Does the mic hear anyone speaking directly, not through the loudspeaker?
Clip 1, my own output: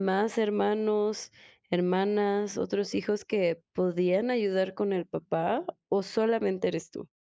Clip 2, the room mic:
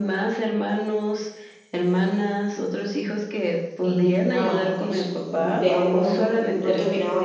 Yes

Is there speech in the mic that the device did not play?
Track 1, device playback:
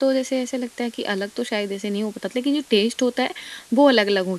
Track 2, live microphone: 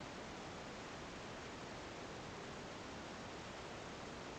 No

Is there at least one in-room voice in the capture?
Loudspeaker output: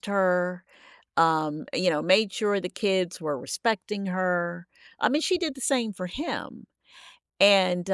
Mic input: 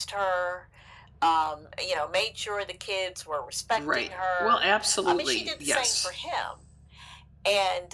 Yes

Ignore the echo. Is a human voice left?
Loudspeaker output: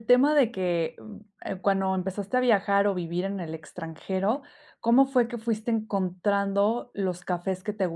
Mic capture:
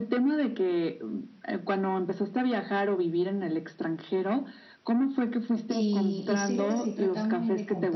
Yes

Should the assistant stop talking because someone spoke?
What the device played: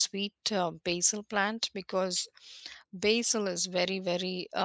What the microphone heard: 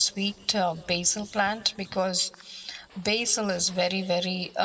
No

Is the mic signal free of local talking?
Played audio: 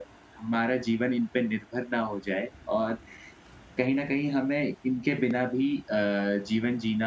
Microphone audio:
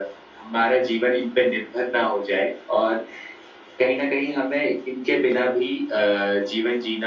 Yes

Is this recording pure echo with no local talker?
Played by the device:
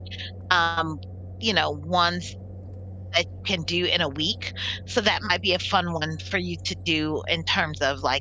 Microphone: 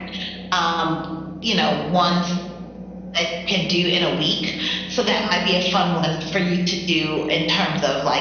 Yes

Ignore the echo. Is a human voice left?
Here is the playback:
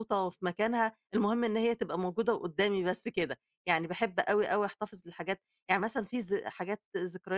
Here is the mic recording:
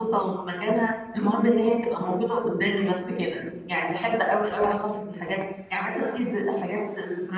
No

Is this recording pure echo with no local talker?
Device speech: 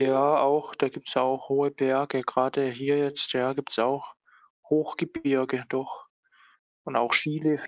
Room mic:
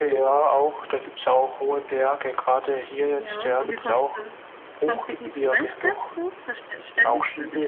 No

